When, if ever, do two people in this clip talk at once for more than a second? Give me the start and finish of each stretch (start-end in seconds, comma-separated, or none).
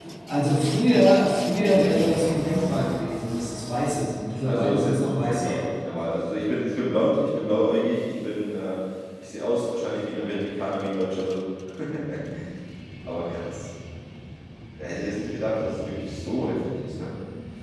4.4-5.7